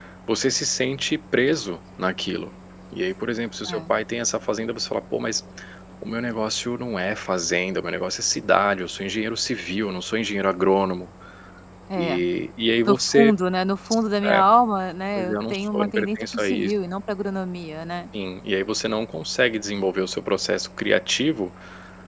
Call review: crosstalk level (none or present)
present